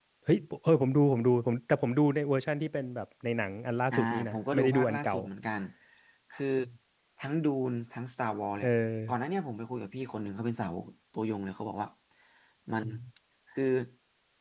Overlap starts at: 3.9 s

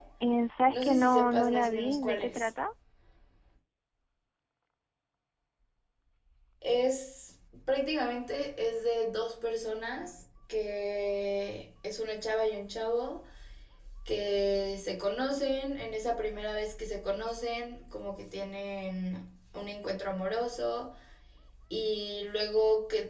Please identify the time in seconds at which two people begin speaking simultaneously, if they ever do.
0.7 s

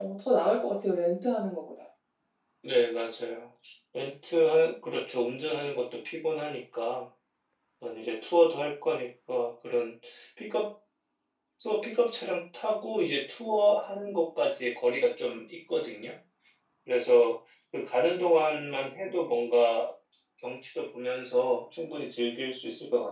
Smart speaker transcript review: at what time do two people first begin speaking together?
none

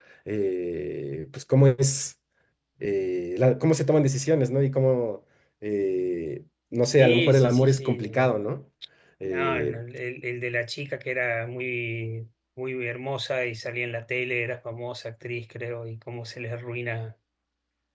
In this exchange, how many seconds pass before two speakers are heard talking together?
6.8 s

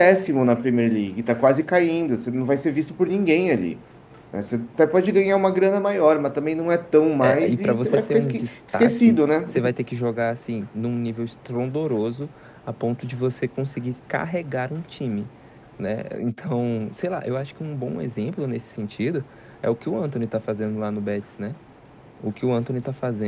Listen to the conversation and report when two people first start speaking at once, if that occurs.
7.2 s

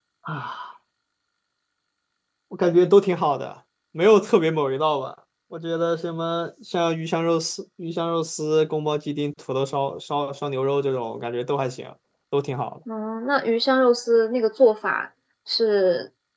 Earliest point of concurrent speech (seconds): none

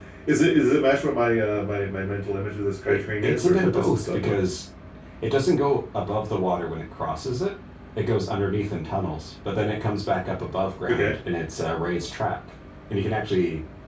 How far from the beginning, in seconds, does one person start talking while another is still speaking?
2.9 s

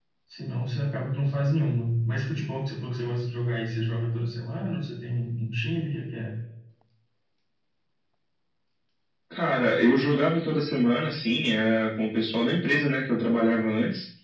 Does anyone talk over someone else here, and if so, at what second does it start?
none

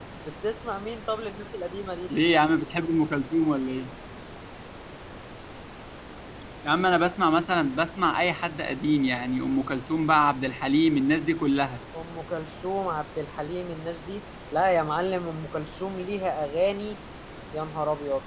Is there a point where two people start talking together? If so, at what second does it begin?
none

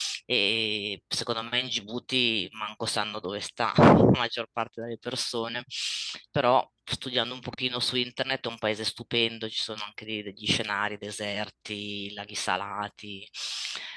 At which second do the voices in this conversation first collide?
none

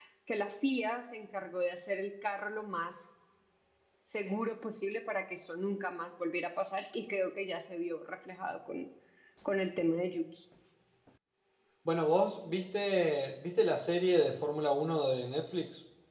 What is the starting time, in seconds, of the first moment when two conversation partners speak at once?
none

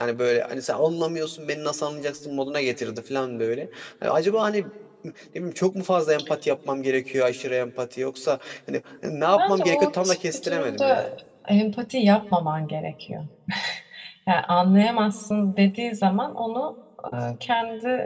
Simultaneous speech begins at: 9.4 s

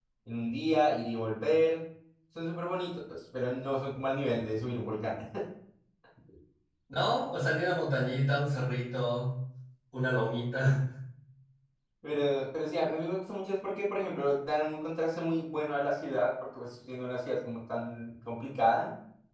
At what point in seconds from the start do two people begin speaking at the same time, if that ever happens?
none

